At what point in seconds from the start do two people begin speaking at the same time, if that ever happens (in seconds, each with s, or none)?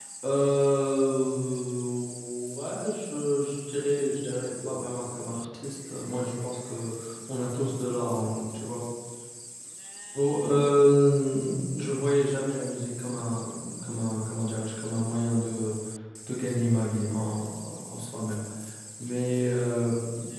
4.0 s